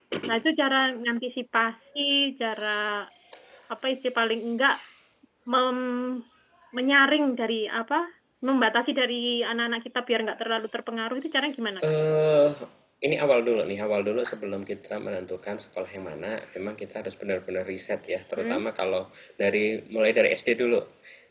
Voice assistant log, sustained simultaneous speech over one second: none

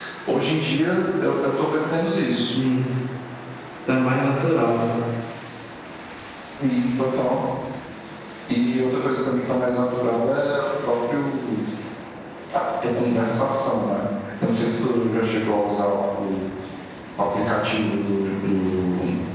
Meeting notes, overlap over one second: none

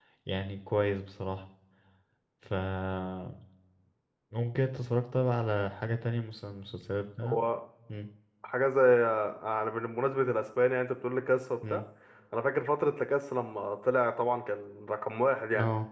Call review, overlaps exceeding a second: none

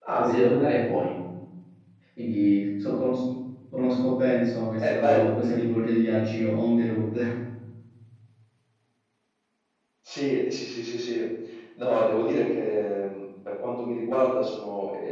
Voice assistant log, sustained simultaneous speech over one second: none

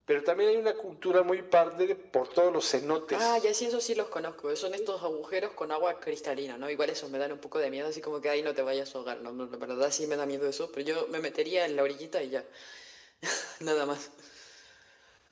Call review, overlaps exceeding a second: none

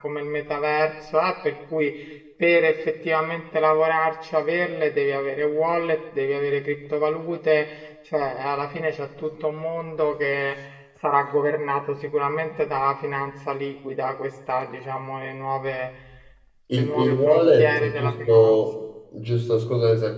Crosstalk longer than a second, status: present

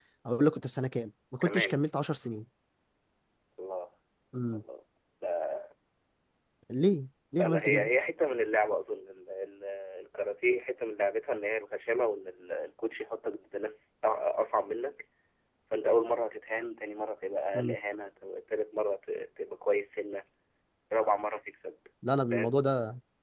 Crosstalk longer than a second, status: none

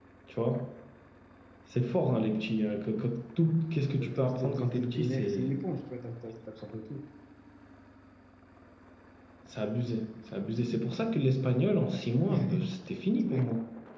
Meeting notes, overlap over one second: present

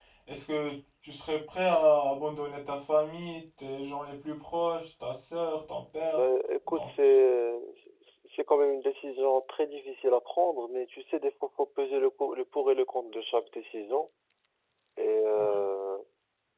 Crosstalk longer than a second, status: none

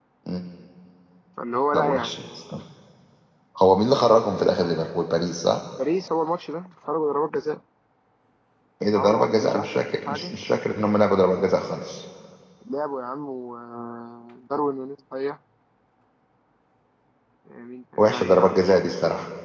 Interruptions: present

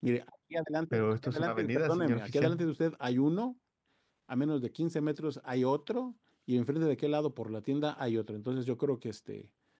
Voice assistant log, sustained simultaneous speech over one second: present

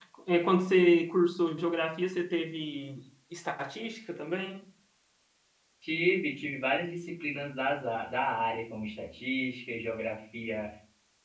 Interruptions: none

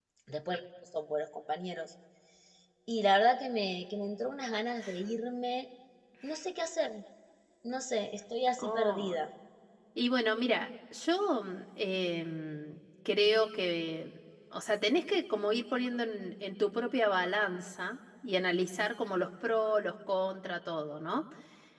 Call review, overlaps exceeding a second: none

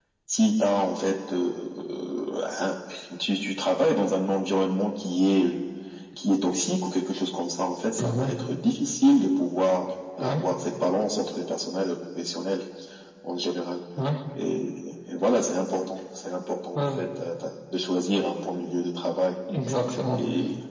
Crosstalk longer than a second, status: none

